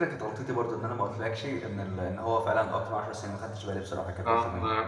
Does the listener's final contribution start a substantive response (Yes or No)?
Yes